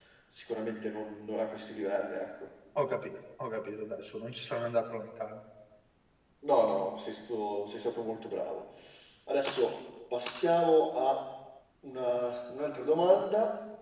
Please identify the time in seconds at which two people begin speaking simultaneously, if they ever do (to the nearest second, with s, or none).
none